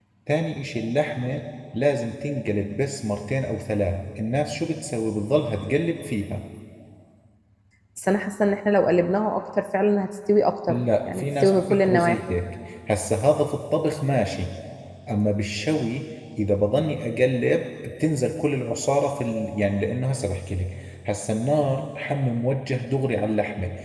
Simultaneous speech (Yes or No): Yes